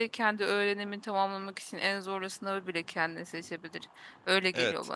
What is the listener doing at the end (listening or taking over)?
taking over